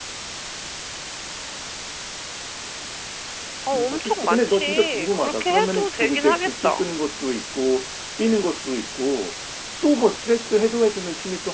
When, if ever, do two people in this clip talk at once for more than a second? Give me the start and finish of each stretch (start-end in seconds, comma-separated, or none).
3.8-6.8